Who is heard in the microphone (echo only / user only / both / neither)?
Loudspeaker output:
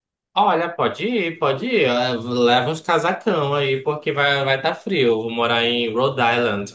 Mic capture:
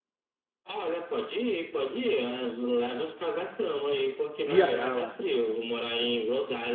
both